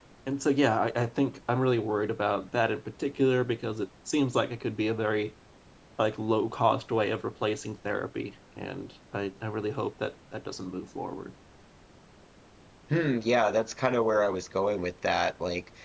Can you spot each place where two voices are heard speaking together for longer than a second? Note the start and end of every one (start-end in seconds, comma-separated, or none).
none